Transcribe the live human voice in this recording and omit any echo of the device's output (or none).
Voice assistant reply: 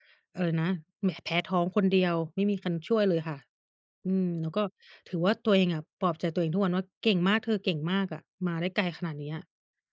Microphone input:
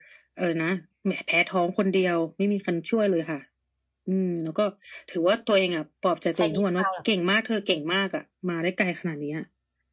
Chinese town เหรอ?